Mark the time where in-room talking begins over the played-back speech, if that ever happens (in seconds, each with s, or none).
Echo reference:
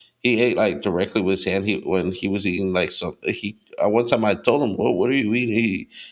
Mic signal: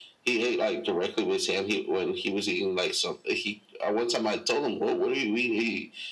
none